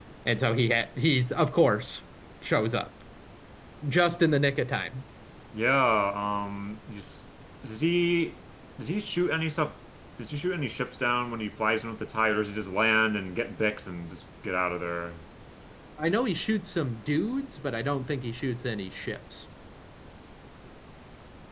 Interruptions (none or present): none